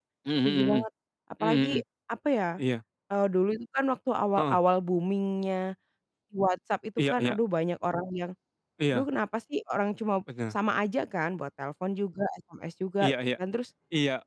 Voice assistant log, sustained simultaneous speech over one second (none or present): none